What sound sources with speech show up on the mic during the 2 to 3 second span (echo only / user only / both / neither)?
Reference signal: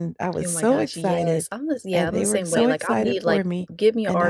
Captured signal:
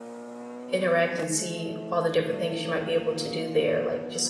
user only